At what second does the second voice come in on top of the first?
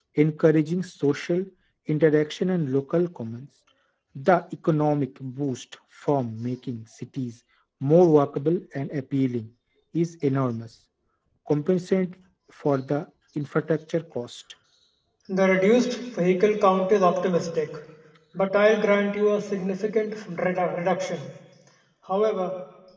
none

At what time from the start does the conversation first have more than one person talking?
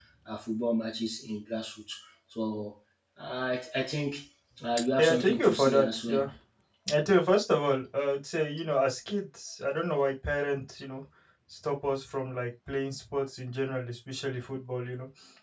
5.0 s

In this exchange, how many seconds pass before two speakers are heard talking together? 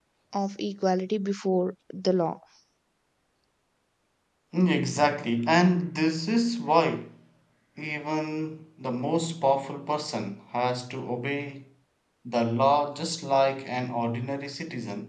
none

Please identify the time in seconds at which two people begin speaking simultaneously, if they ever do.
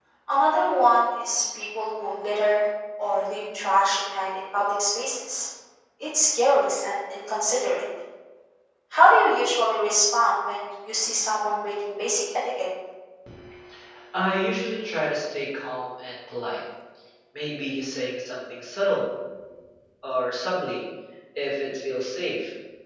none

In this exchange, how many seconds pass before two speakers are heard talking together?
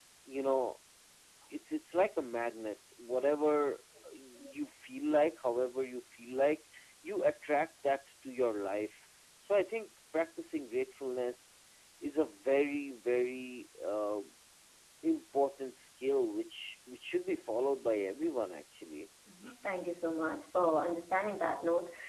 none

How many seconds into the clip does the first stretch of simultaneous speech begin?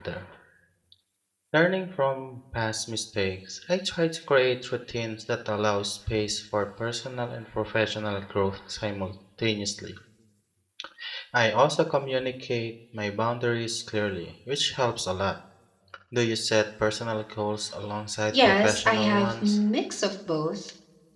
18.3 s

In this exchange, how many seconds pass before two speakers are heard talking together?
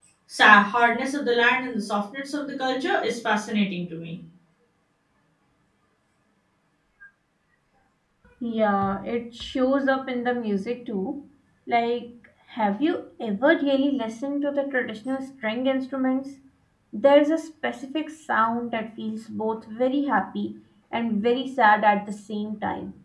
none

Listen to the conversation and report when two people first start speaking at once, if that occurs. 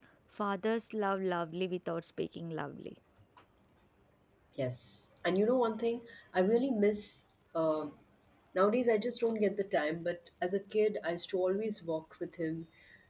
none

